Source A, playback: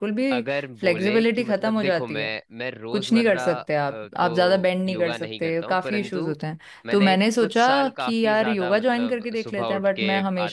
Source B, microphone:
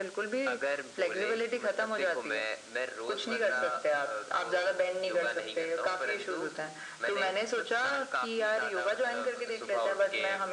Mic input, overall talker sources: echo only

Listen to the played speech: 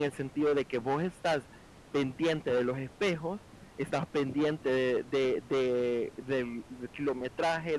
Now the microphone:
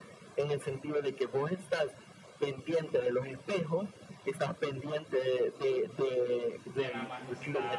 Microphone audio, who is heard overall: both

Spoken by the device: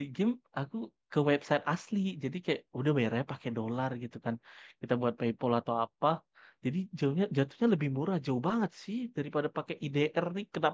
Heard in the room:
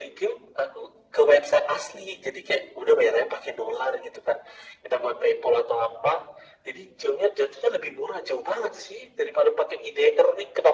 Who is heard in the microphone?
echo only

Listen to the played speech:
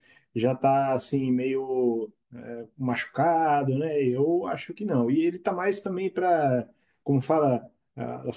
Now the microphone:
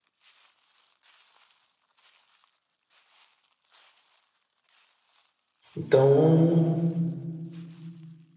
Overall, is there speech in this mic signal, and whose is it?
user only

